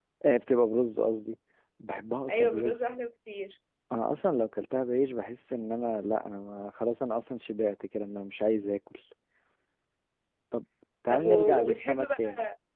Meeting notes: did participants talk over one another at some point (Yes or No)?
Yes